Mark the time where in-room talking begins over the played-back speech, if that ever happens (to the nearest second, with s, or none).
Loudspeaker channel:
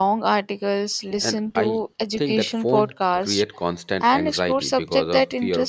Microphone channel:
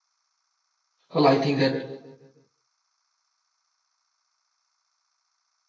1 s